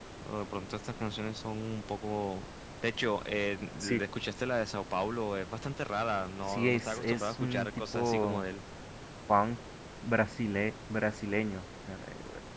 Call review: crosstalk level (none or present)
present